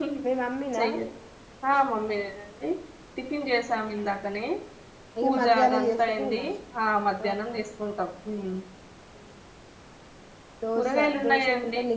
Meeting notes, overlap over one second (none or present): present